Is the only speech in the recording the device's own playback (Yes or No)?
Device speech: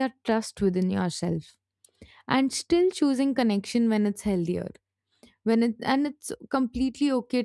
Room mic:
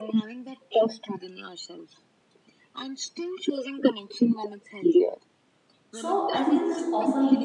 No